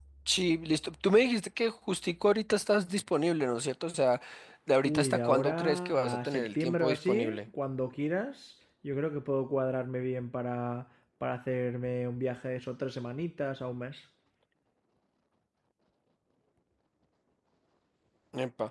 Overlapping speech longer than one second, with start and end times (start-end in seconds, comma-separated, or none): 5.0-7.4